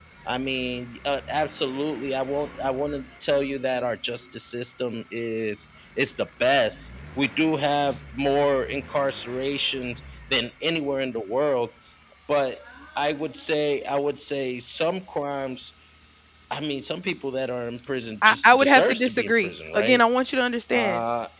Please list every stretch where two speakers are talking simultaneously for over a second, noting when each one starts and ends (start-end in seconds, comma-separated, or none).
18.2-20.0